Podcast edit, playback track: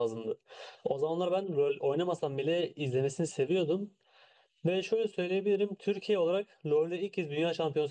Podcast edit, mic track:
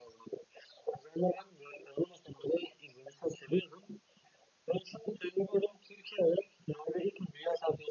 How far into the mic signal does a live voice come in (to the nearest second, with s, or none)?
none